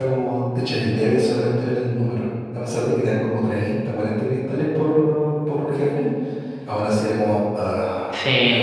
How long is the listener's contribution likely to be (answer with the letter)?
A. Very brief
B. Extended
B